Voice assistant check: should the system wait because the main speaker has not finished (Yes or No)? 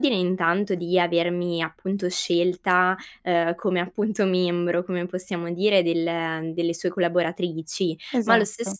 Yes